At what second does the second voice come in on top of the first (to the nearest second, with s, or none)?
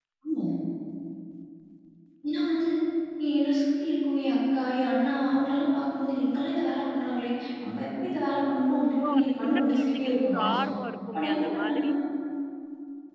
9 s